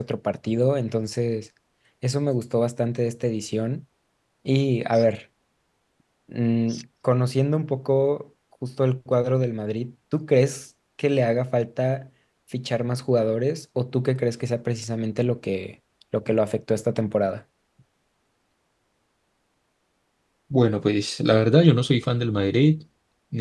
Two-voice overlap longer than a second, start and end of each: none

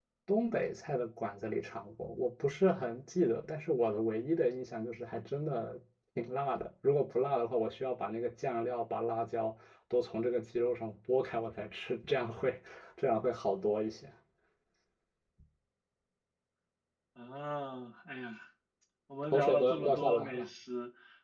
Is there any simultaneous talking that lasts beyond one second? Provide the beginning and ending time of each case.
19.2-20.5

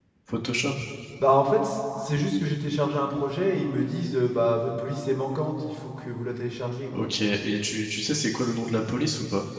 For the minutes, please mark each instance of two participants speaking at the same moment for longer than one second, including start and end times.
none

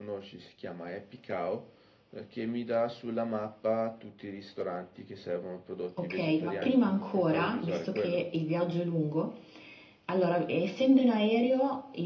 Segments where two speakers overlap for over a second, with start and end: 6.0-8.2

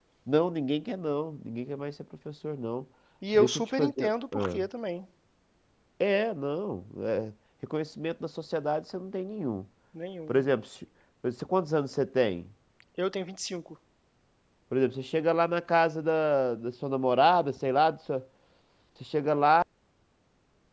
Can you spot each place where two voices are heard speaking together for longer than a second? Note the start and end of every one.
3.4-4.6

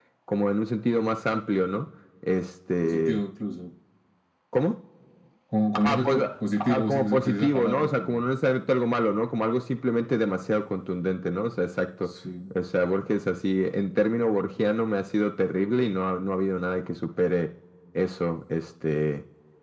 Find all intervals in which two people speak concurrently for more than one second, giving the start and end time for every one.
6.6-8.2

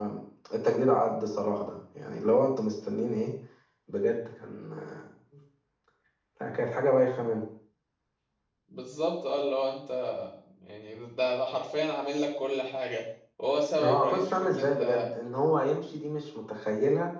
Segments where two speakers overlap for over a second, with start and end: 13.8-15.1

